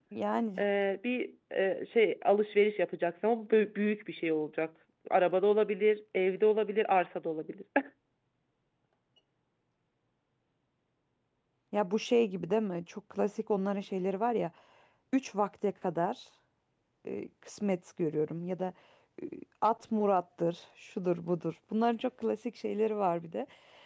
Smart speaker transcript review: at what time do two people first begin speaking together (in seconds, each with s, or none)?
none